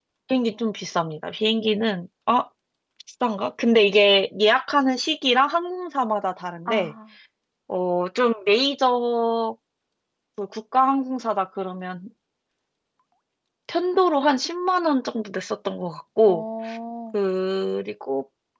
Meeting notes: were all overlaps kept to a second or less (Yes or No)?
Yes